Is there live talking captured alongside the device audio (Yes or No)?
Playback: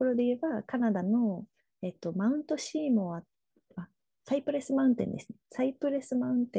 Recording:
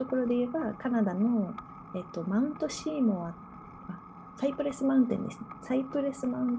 No